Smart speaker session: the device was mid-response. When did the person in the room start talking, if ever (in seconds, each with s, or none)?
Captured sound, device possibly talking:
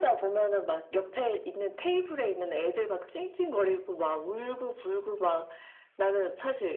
none